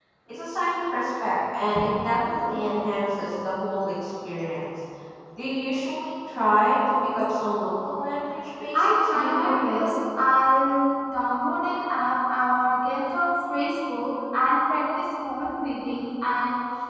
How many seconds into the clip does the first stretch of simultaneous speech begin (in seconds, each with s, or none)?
8.7 s